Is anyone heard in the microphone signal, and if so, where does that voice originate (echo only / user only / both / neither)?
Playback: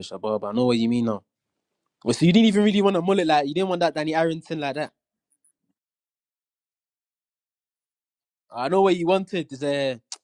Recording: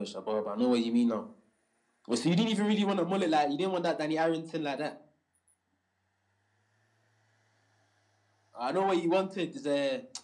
echo only